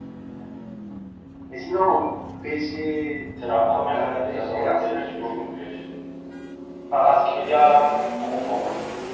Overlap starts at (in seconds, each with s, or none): 3.9 s